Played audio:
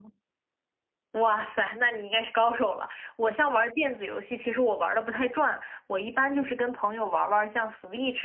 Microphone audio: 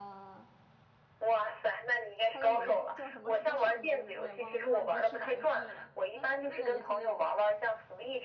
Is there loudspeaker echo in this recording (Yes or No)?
Yes